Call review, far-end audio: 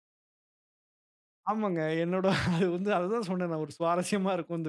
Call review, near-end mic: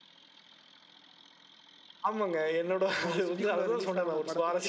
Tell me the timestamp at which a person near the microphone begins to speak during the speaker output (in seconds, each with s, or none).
3.0 s